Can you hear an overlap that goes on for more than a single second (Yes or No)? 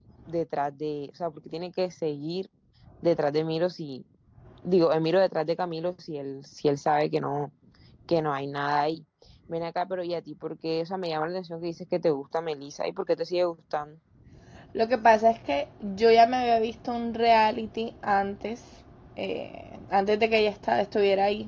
No